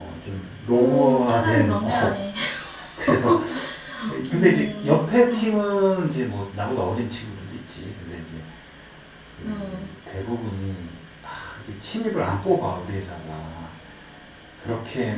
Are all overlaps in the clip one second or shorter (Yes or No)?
No